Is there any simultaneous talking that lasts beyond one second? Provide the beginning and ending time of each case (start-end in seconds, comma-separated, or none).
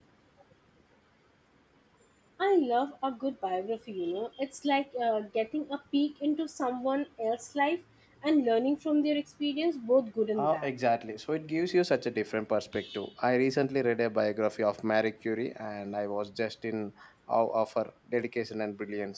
none